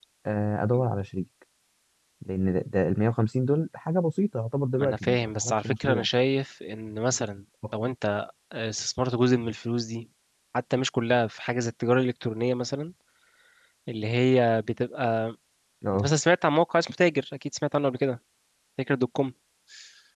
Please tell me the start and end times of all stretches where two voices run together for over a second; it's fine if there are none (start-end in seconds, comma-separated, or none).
4.8-6.1